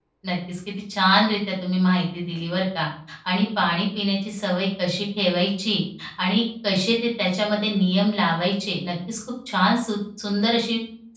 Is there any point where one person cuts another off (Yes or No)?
No